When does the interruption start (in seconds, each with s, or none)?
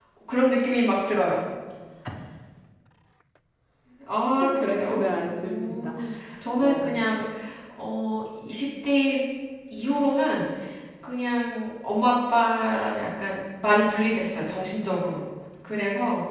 4.5 s